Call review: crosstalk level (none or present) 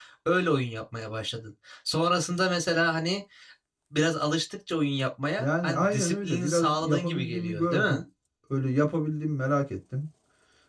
present